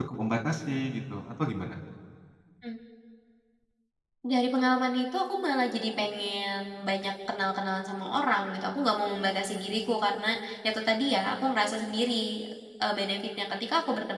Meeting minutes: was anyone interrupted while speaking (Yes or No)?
No